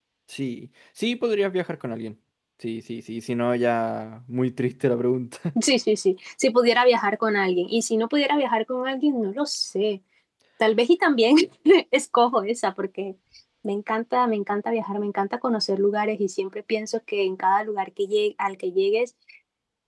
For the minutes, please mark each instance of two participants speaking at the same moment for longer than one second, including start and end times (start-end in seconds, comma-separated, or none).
none